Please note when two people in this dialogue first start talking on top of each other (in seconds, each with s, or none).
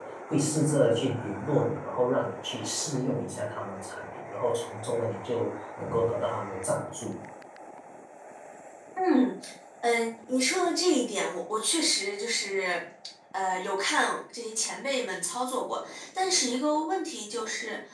none